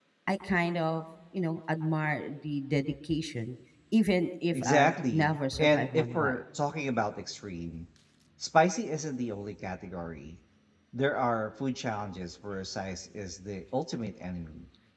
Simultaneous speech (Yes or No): Yes